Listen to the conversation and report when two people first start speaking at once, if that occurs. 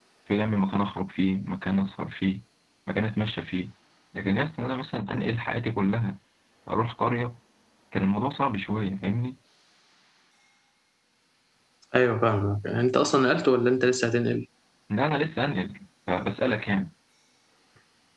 none

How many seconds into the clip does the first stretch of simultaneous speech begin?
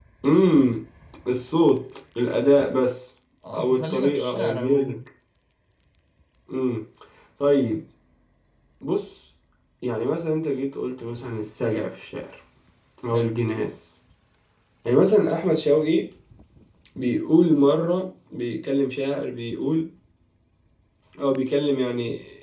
3.5 s

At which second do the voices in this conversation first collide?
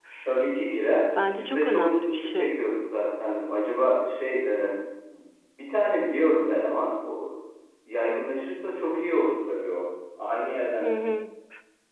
1.3 s

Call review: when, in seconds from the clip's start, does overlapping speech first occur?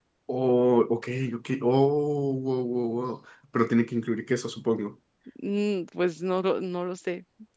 none

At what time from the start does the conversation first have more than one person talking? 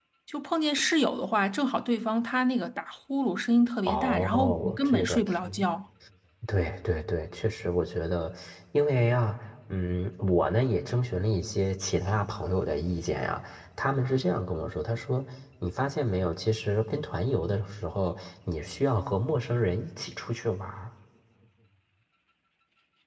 3.9 s

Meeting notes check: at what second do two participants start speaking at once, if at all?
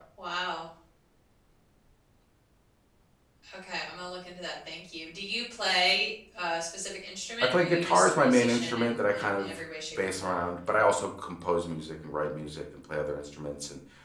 7.4 s

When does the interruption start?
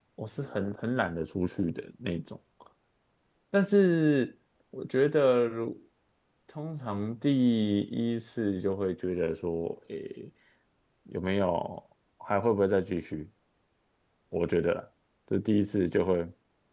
none

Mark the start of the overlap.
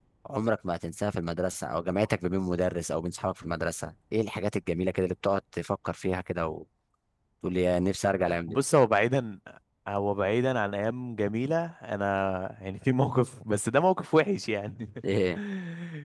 none

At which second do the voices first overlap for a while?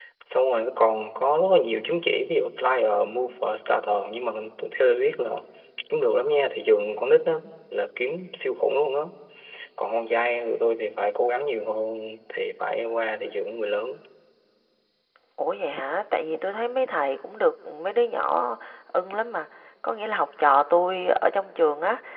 none

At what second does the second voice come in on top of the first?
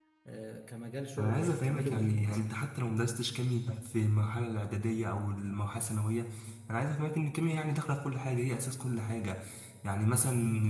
1.2 s

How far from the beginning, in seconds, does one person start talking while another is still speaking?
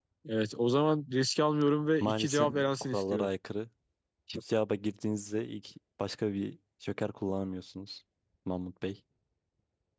2.0 s

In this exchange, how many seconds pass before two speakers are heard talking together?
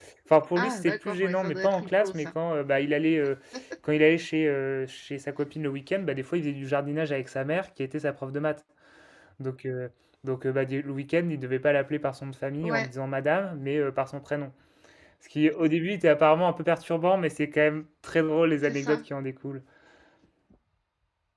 0.6 s

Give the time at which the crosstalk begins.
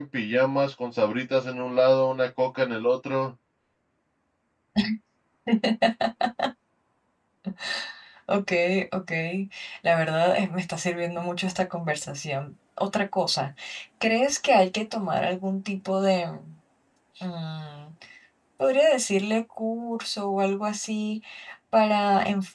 none

